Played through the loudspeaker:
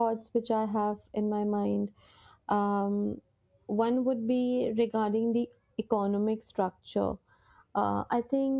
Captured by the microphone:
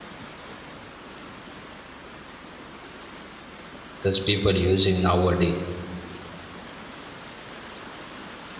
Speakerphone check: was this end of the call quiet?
No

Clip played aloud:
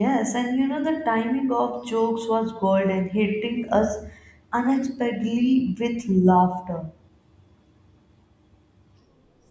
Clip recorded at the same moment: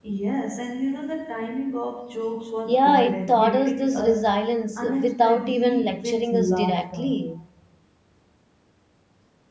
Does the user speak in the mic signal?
Yes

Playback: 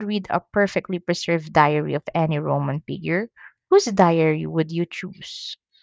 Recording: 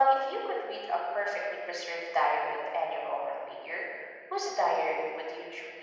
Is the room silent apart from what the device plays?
Yes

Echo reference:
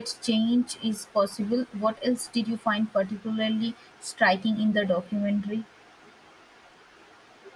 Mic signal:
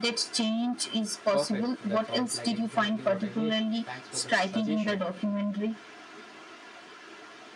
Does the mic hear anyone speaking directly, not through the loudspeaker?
Yes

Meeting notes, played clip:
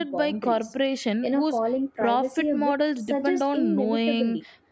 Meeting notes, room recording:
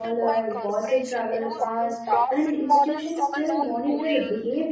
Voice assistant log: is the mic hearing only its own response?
No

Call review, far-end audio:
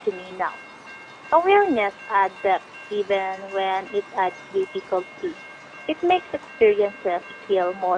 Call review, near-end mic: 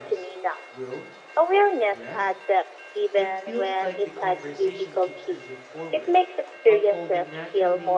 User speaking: Yes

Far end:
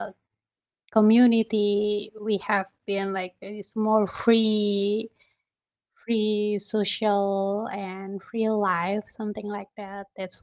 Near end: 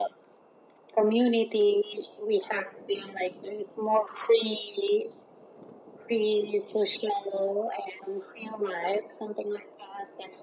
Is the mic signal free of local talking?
Yes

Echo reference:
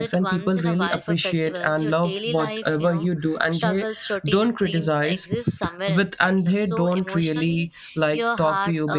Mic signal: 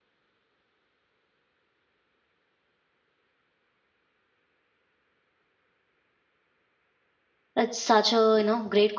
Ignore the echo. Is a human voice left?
Yes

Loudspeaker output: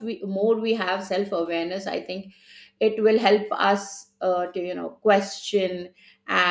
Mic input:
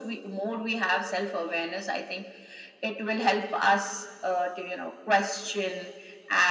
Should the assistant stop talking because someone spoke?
No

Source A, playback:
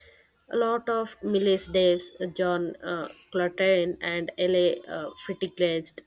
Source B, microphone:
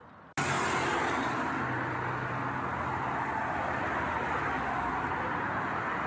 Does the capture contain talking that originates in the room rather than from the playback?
No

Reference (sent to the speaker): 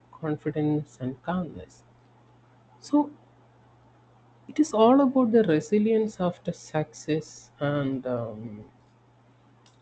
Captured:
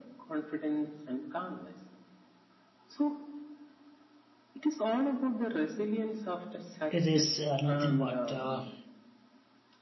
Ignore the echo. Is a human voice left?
Yes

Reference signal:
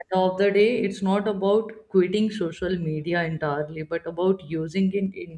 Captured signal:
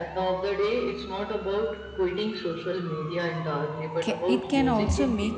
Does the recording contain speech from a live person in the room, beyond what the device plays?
Yes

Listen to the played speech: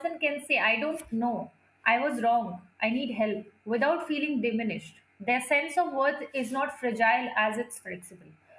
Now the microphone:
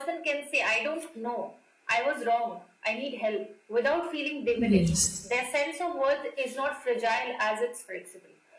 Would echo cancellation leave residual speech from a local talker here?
Yes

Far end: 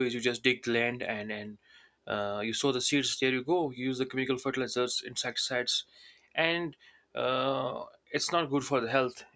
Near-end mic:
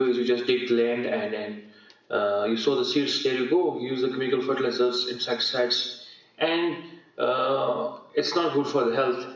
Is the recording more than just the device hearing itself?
No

